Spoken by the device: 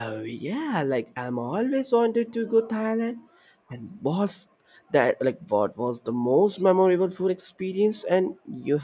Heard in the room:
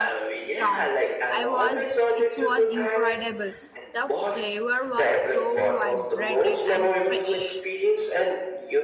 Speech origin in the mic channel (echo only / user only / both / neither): both